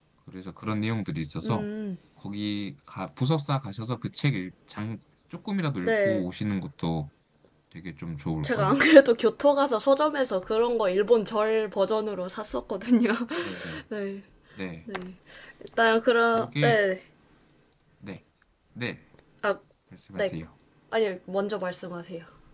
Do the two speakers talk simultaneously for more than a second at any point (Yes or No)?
No